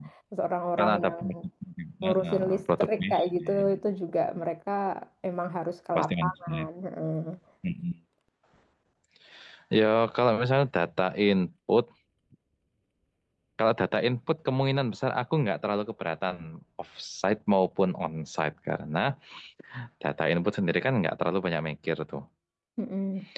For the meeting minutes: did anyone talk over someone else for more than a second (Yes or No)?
Yes